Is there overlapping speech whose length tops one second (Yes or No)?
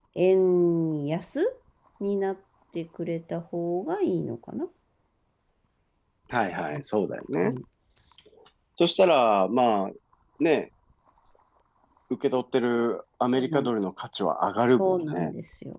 No